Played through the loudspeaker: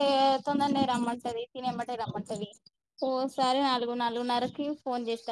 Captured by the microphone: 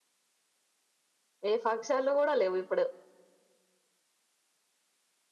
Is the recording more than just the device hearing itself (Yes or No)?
Yes